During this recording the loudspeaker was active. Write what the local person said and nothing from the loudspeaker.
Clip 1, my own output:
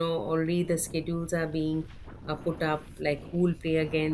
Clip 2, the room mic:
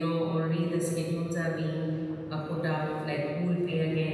none

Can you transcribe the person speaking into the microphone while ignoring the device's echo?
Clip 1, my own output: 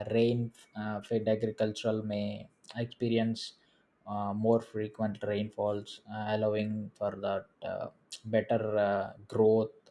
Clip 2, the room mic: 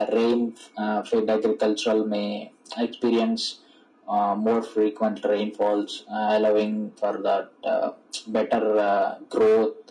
none

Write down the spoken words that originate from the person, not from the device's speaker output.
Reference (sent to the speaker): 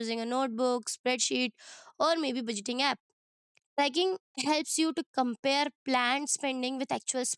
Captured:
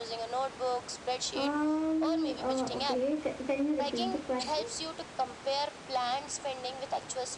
Um, uh, okay, ca- can you repeat the question?

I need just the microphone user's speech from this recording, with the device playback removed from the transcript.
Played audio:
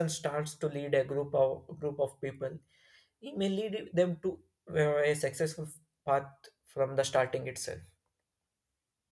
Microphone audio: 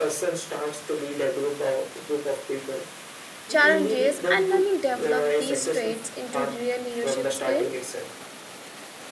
challenges and learning develop these traits into real leadership skill

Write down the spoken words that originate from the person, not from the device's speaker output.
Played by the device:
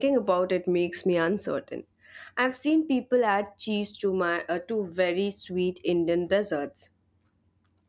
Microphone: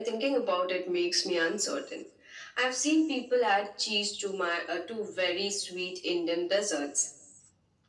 none

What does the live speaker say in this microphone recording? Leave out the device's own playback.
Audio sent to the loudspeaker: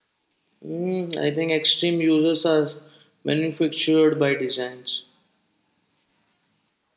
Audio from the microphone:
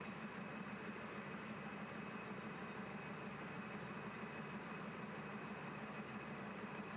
none

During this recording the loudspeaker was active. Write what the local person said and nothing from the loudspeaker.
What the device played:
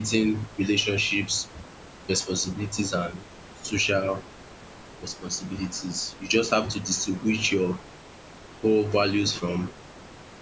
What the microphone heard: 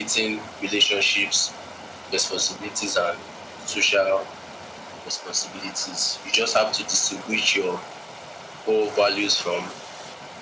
none

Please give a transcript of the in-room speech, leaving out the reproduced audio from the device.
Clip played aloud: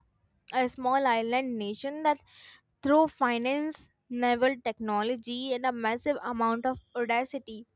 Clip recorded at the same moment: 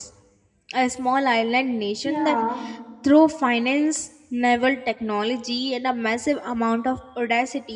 Yeah,

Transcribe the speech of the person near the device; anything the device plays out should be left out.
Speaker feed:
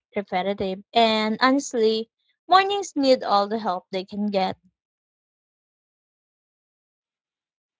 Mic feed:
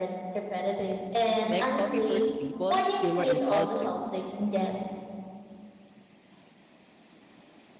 Like coffee first people feel more impulsive,

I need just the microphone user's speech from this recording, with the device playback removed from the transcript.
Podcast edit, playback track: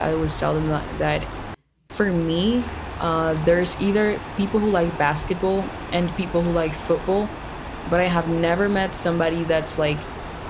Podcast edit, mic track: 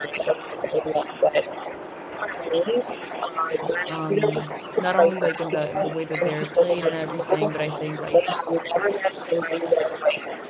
Um, not only like in the in the way that they're played and everything, but I think like

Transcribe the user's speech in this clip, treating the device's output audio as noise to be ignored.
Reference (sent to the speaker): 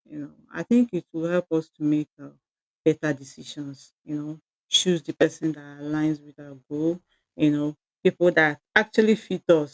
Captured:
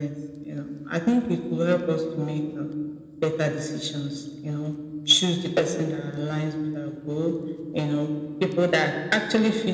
none

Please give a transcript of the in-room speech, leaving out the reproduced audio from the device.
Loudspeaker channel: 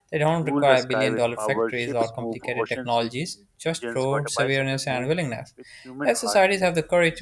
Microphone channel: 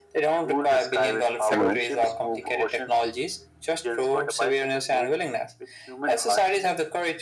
Hello.

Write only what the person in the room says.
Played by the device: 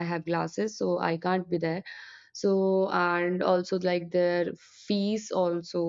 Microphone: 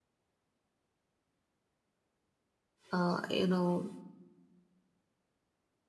uh, you know

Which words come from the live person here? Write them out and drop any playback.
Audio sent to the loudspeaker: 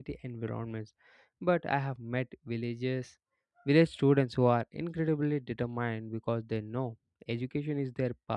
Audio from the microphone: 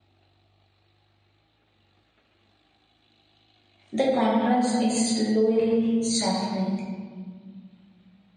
The contrast is slowly softening.

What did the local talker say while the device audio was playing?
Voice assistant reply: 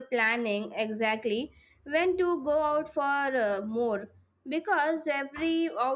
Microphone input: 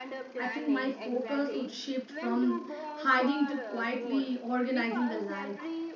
I think my focus would shift from hiding to quietly organizing the life,

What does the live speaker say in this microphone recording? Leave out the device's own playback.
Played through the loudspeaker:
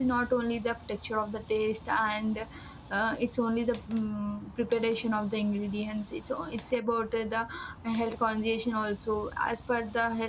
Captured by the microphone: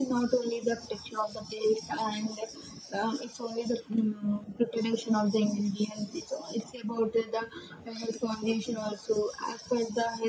none

